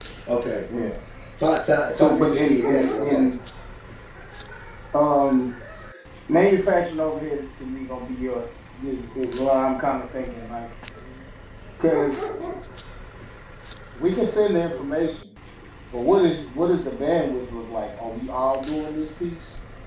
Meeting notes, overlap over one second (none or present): present